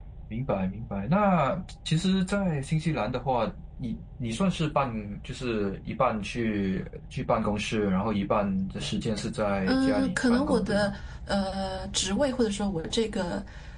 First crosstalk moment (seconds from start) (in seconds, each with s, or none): 9.7 s